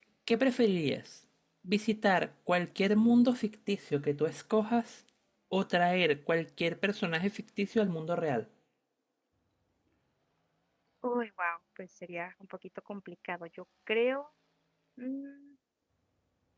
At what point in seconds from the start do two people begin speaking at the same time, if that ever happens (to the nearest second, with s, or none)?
none